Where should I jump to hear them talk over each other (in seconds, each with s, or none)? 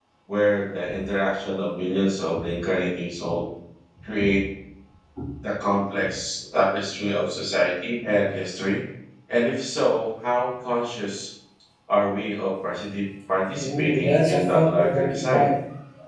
13.6 s